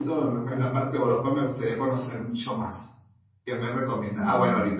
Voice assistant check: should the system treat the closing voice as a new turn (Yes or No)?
No